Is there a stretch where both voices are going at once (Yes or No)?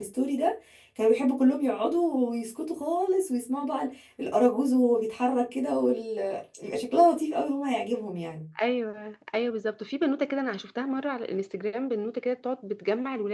No